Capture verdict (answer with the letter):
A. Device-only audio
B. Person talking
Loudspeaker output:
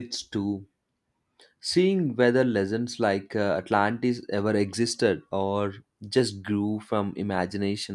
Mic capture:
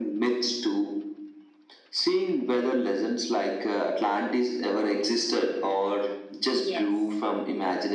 B